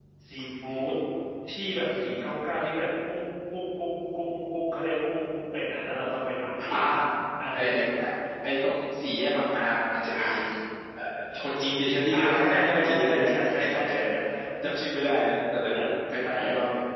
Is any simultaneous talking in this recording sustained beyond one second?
Yes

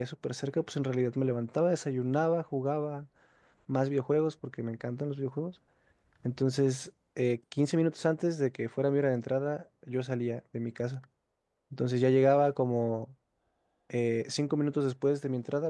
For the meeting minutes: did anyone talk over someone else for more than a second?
No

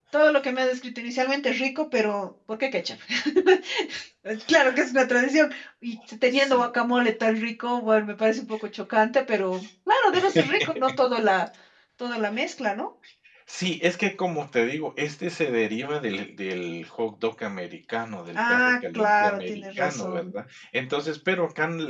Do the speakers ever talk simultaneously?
Yes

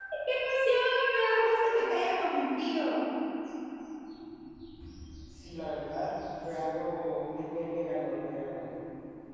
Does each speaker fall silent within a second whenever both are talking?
Yes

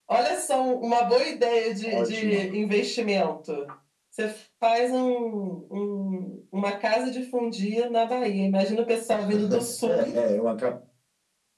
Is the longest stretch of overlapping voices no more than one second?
Yes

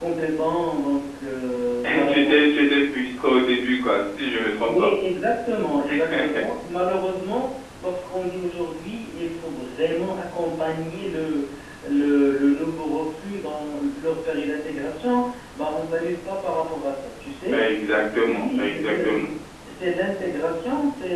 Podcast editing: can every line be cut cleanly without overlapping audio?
No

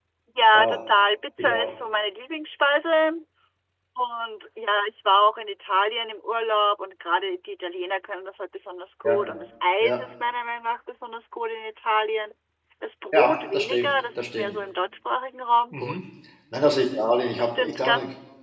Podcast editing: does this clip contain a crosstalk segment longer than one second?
Yes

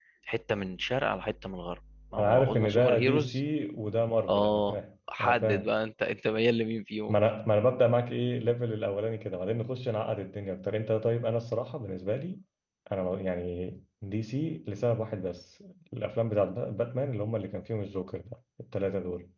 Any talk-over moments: Yes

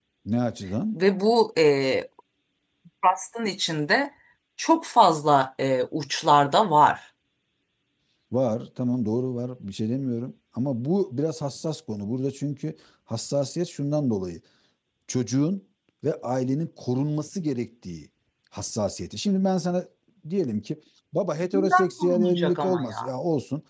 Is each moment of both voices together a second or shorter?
No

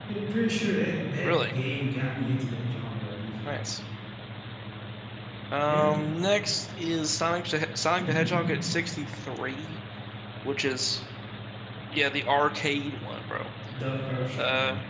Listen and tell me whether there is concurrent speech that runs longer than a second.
No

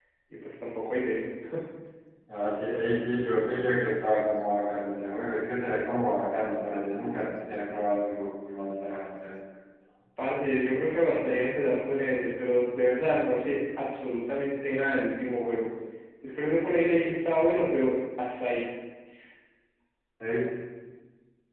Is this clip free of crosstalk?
Yes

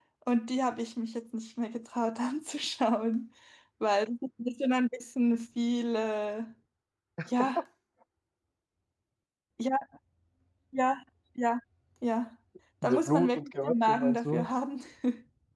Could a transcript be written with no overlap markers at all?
No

